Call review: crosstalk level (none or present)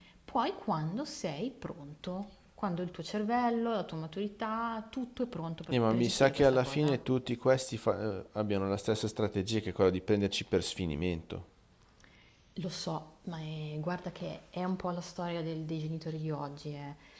present